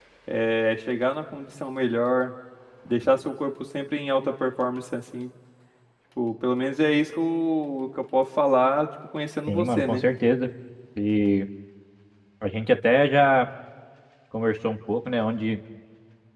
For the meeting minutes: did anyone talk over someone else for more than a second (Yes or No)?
No